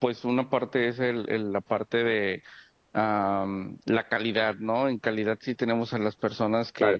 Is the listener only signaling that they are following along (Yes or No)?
Yes